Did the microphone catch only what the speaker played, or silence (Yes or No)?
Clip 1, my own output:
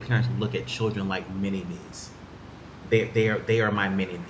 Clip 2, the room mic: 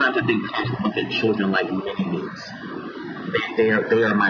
Yes